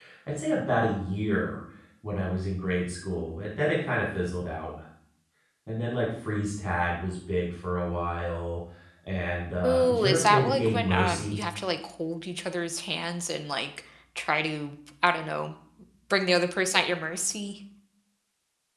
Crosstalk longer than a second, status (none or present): present